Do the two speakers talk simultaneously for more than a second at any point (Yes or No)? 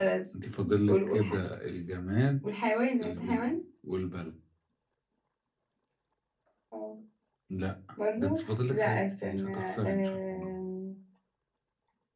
Yes